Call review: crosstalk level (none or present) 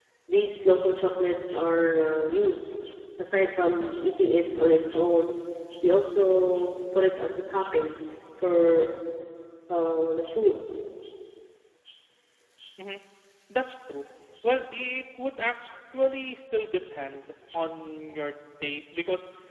none